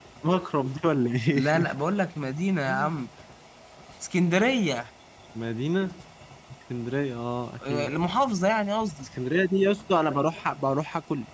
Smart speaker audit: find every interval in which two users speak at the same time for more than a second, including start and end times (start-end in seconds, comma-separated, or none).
none